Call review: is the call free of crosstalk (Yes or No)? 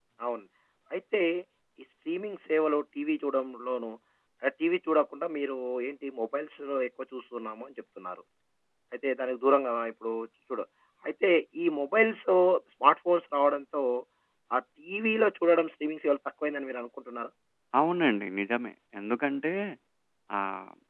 Yes